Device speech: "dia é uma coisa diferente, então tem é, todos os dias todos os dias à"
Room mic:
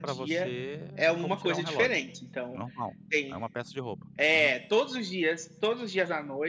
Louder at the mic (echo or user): echo